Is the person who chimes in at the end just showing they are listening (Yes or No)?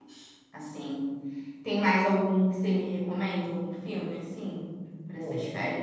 No